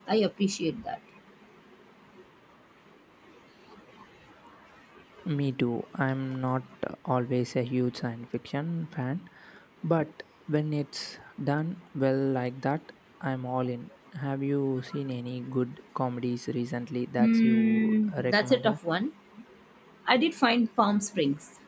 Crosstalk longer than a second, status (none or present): present